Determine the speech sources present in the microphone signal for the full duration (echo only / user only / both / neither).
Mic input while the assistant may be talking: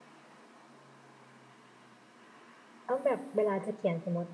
user only